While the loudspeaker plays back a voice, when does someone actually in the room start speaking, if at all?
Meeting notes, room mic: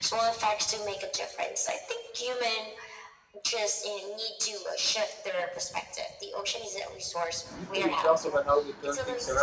7.6 s

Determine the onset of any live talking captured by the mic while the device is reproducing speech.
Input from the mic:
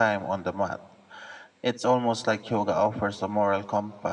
none

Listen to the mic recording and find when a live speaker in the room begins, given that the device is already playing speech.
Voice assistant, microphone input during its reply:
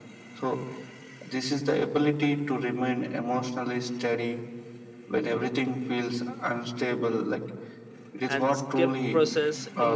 8.3 s

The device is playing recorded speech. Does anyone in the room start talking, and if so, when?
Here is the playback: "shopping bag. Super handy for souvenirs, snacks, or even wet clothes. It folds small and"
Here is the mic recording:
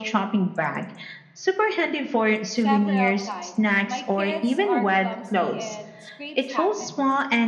2.5 s

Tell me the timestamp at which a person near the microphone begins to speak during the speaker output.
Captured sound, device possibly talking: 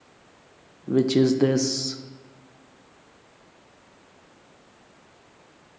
0.8 s

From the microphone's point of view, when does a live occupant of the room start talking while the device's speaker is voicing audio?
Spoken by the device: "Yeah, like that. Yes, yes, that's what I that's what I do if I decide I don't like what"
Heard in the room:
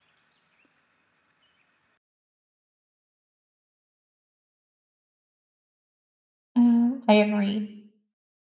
6.6 s

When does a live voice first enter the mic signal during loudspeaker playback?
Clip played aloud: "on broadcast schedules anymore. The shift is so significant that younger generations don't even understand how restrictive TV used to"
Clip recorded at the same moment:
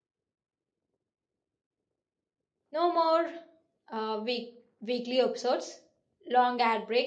2.7 s

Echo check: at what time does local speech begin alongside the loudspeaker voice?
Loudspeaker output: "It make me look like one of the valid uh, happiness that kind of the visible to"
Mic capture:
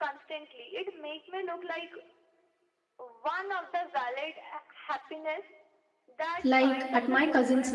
6.4 s

